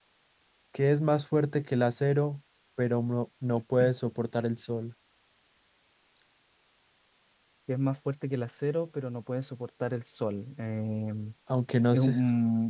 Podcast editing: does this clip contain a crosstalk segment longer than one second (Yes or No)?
No